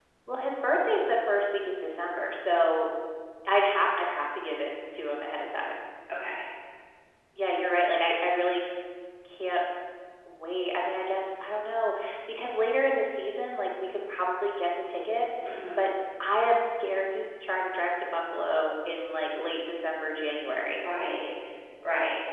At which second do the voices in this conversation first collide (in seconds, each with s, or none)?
none